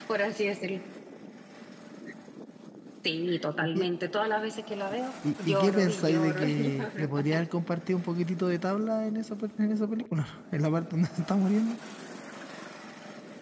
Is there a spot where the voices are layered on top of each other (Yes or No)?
Yes